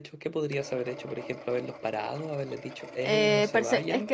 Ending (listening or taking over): taking over